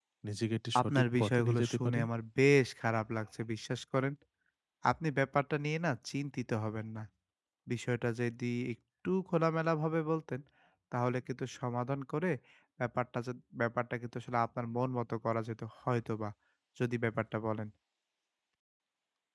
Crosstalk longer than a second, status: present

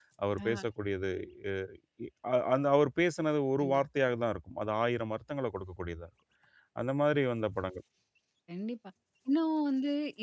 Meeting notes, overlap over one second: none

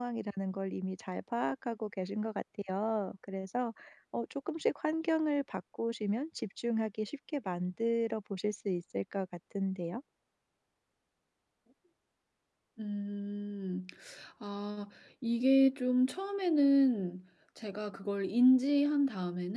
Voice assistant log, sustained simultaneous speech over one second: none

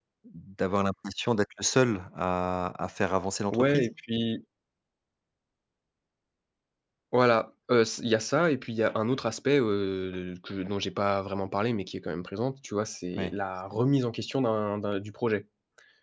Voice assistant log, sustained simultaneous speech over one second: none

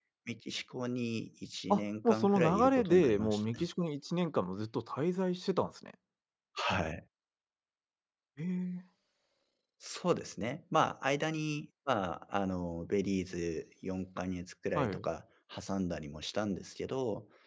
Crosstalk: present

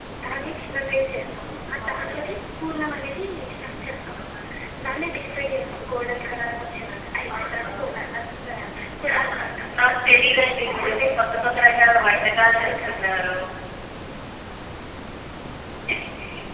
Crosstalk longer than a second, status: present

